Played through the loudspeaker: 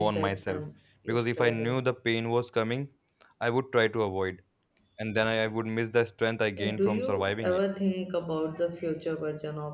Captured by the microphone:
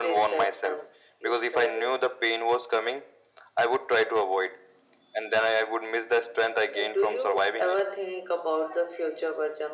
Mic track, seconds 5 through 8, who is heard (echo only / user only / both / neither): echo only